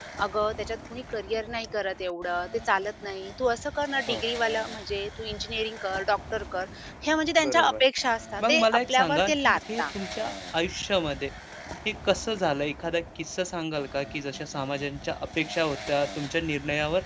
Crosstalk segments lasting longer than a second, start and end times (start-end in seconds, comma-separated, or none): 8.4-9.9